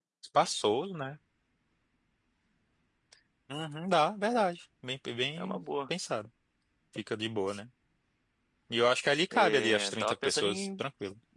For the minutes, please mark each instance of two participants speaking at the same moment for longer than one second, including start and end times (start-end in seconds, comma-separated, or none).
9.3-10.8